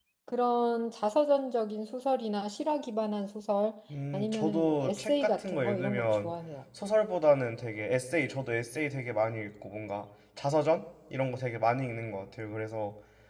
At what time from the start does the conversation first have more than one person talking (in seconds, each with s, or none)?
4.1 s